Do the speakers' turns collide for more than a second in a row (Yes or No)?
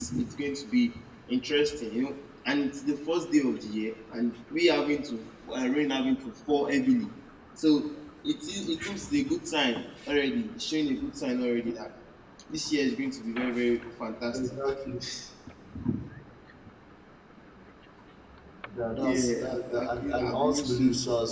Yes